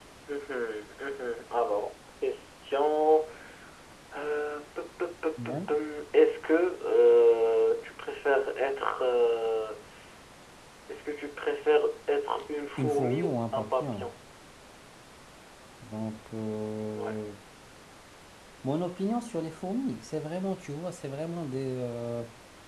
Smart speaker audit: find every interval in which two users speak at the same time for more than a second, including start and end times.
12.8-14.1

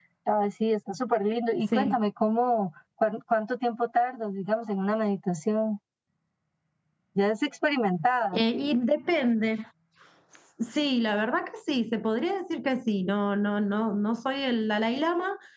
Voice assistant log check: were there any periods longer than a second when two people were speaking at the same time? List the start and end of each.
none

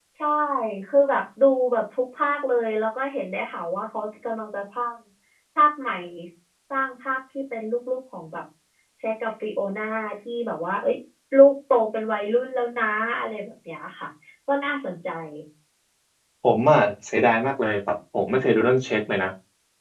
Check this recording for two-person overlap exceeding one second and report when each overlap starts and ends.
none

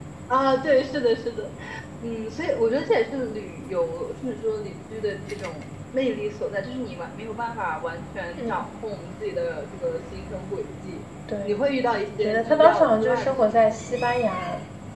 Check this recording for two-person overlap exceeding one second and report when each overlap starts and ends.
12.2-13.6

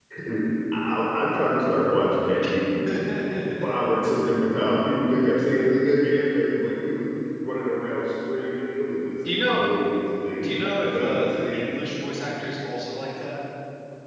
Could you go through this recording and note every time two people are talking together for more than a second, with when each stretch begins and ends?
10.4-11.6

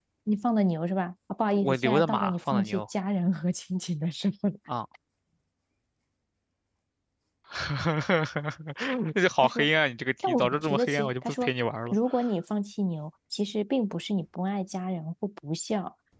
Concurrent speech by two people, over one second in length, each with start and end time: 1.6-2.8, 10.2-11.5

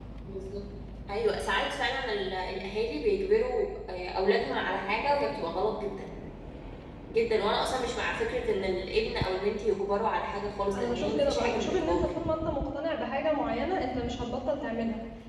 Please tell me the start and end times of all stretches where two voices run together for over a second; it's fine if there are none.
10.7-12.1

